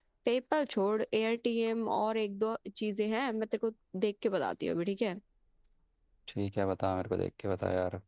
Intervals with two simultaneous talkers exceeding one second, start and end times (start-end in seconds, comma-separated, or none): none